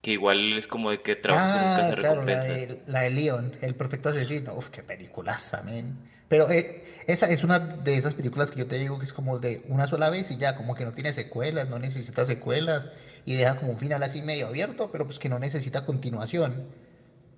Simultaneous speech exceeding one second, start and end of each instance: 1.3-2.6

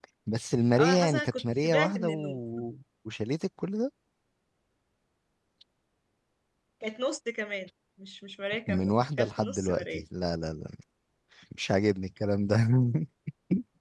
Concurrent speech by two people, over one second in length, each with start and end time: 0.8-2.4, 8.7-10.1

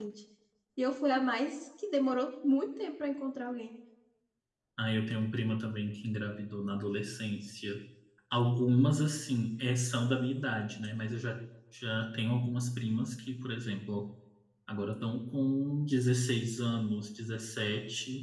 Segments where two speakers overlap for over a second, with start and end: none

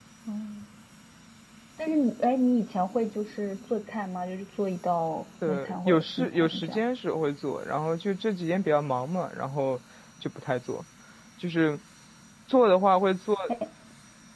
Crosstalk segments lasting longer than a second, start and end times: 5.5-6.8

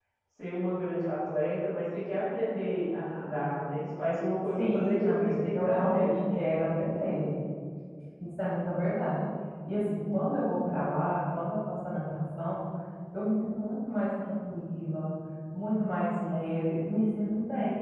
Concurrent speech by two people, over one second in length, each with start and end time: 4.6-6.1

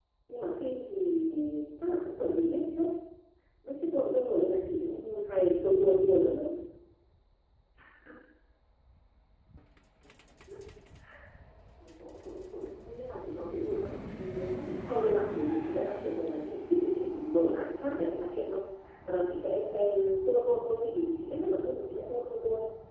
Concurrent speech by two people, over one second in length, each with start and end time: 14.9-16.9

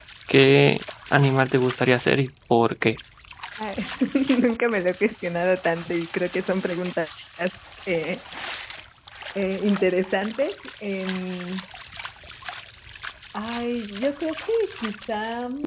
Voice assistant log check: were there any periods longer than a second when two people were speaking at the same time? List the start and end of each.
none

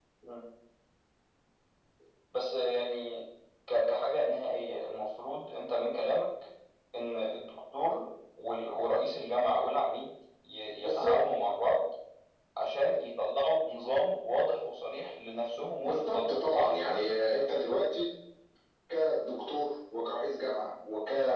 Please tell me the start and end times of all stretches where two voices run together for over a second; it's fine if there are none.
15.8-17.0

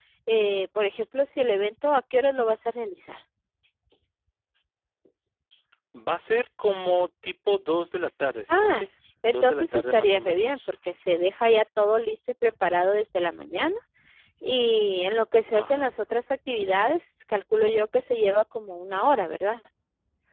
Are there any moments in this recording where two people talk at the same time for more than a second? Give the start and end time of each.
9.3-10.7

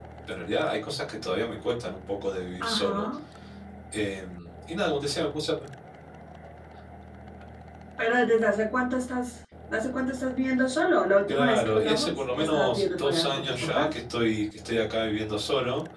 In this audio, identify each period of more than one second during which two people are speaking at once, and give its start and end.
11.3-13.9

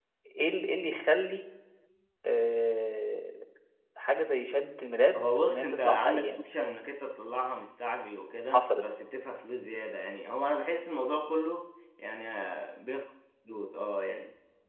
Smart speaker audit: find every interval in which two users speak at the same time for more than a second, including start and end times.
5.2-6.4

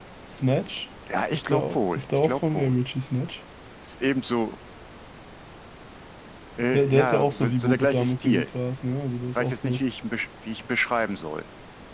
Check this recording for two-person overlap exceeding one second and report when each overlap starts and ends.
1.3-2.8, 6.6-8.5

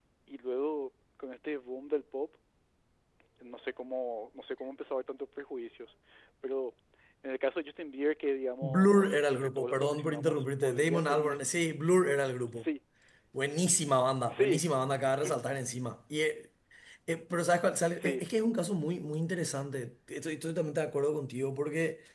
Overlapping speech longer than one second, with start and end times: 8.6-11.4

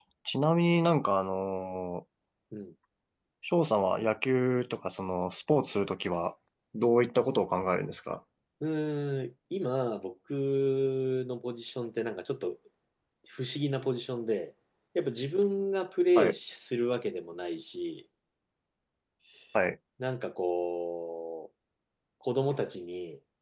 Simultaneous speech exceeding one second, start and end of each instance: none

